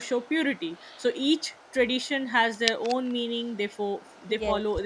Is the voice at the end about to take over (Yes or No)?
No